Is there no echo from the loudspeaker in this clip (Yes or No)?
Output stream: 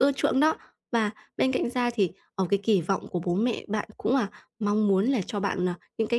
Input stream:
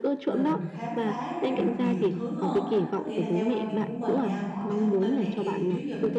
No